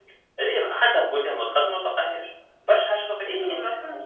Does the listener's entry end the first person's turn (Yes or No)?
Yes